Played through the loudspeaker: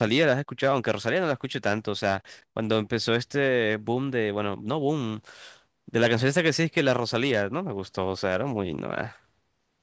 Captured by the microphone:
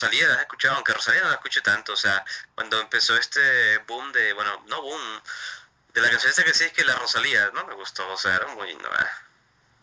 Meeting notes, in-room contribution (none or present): none